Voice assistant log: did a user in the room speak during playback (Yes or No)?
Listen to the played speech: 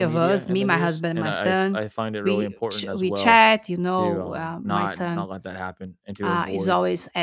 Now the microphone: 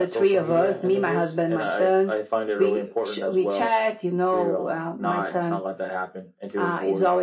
No